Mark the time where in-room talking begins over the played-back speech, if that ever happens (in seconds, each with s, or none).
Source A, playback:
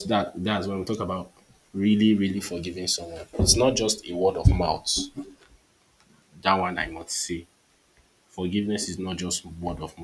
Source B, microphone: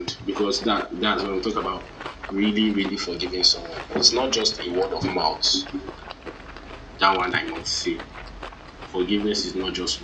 none